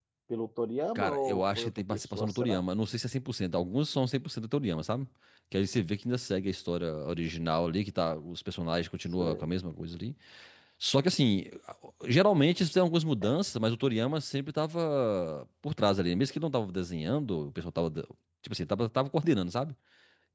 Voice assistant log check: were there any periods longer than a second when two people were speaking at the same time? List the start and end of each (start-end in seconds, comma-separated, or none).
1.0-2.6